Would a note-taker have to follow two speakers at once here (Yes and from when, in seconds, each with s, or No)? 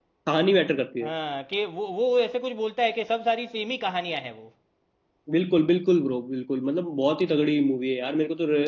No